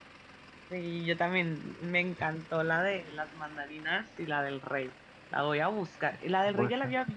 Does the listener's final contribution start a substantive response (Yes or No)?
No